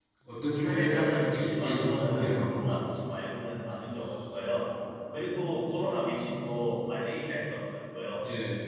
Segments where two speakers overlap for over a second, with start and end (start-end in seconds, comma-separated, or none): 0.6-2.5